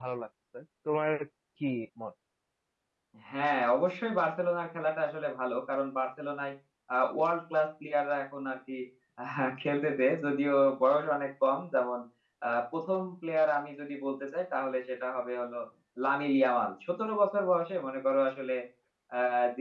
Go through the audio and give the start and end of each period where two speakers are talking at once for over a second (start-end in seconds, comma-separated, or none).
none